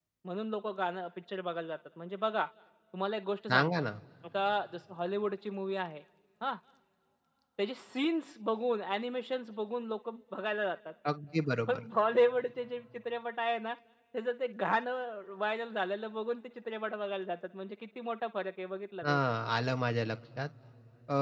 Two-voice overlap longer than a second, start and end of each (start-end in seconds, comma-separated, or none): none